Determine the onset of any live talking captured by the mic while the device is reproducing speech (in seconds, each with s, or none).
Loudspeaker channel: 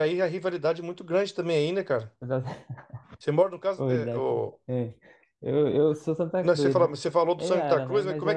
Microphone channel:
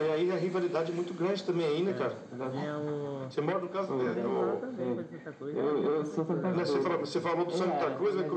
1.9 s